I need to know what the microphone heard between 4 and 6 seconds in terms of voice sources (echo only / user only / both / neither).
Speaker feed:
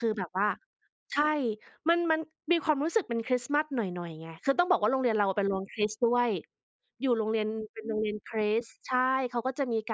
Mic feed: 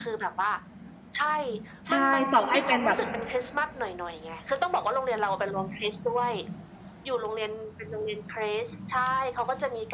echo only